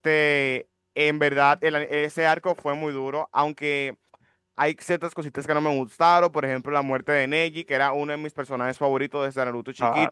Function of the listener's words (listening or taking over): listening